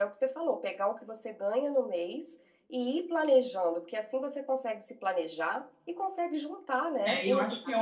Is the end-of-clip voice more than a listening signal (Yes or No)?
Yes